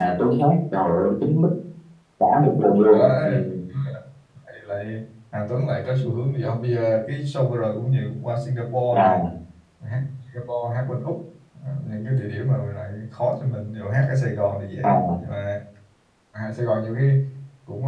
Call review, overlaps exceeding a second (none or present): none